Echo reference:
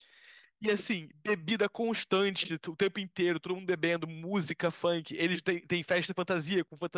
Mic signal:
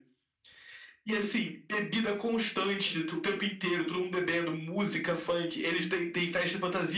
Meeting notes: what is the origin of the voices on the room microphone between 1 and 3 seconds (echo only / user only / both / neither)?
echo only